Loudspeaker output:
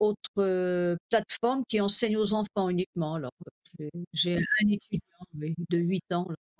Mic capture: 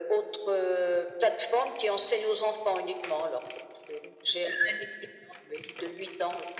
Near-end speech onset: none

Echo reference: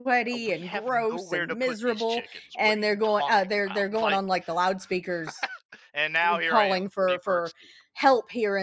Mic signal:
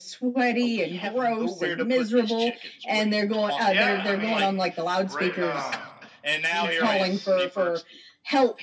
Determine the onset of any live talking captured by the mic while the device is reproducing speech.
3.7 s

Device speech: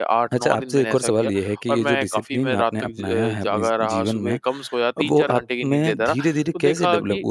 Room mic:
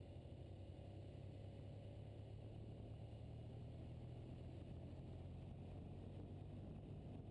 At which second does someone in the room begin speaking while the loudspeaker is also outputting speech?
none

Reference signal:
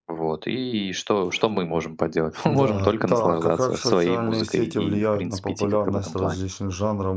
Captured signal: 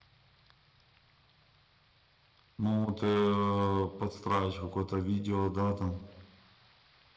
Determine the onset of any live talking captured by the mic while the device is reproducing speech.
2.6 s

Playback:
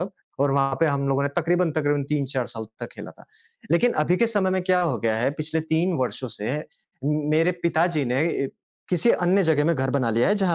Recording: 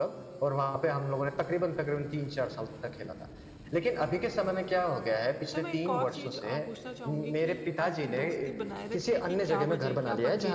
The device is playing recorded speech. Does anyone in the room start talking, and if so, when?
5.5 s

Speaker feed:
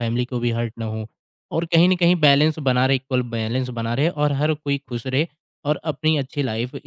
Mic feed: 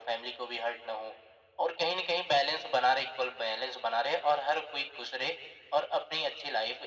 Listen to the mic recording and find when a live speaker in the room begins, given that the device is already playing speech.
none

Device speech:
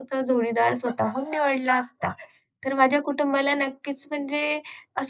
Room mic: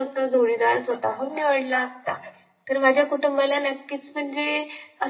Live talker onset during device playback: none

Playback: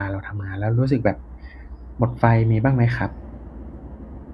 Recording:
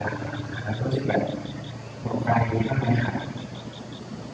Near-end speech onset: none

